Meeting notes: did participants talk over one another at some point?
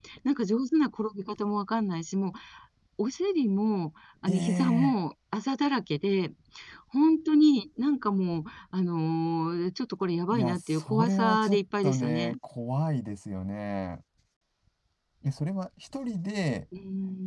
Yes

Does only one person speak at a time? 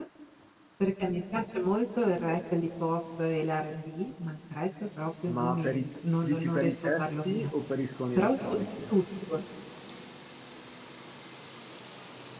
No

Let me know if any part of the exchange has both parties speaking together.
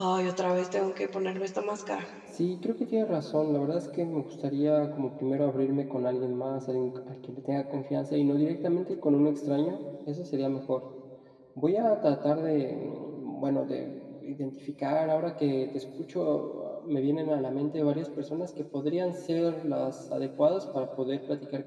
No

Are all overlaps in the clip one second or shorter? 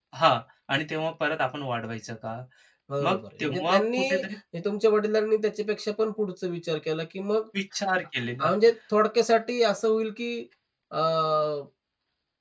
No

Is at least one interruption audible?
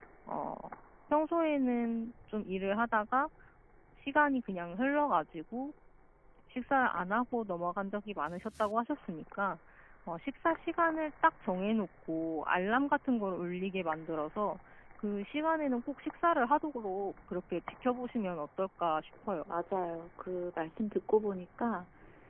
No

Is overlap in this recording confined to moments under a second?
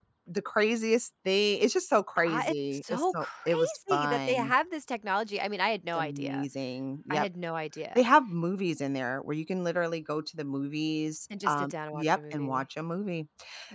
No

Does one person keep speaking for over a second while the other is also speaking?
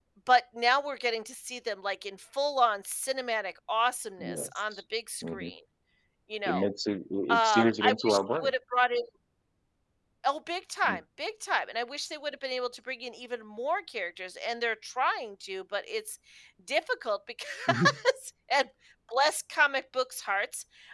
Yes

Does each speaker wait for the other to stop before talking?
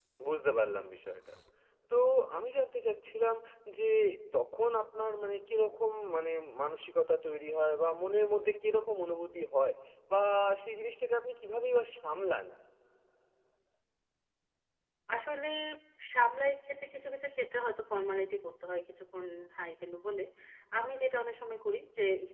Yes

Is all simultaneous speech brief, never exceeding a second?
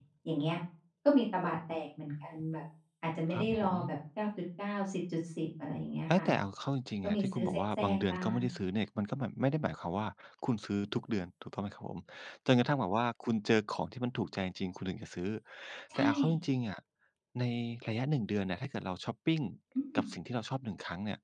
No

